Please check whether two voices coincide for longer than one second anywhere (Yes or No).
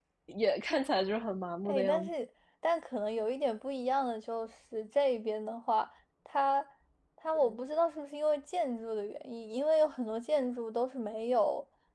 No